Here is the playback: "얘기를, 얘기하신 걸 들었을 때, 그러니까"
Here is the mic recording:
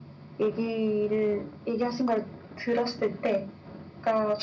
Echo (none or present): present